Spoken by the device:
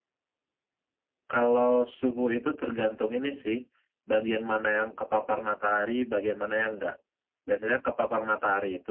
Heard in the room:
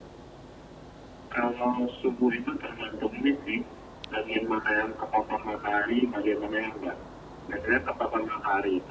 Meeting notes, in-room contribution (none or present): none